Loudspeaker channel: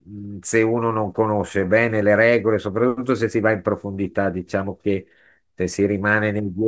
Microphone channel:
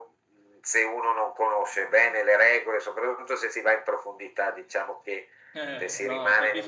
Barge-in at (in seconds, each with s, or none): 5.5 s